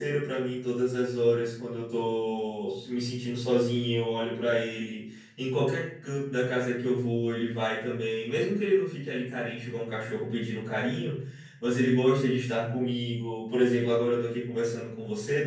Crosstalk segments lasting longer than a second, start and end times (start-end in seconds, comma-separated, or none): none